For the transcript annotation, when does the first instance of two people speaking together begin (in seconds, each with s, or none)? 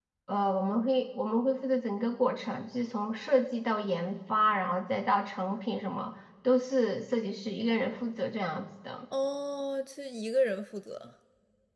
none